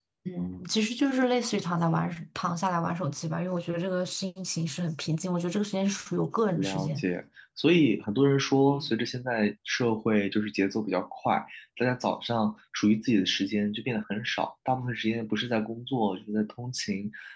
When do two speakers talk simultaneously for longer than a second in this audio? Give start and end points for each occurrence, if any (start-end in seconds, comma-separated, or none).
none